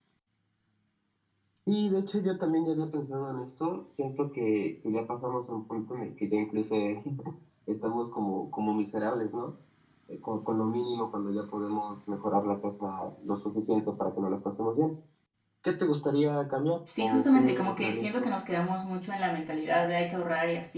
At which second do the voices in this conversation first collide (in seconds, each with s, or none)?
16.9 s